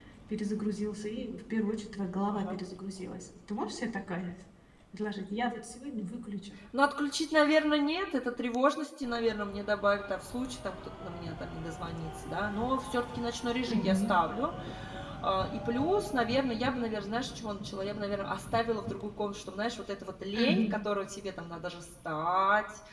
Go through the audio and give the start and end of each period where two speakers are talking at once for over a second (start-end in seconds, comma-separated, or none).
none